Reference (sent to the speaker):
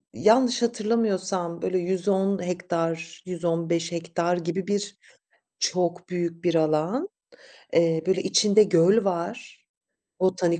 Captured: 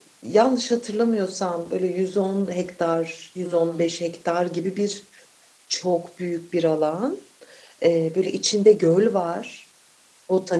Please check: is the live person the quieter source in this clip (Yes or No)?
Yes